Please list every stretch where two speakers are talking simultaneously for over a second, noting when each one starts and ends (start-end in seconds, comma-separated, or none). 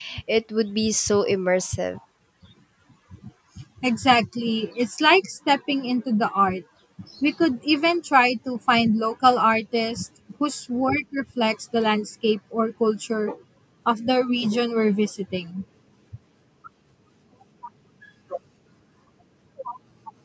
none